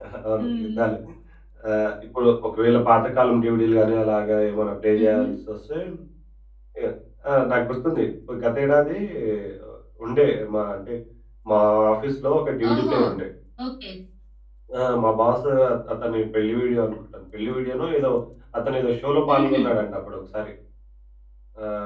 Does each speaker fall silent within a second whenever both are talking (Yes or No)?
Yes